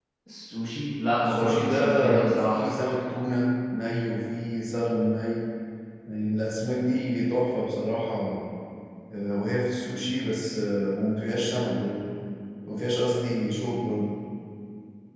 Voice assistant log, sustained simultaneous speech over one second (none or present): present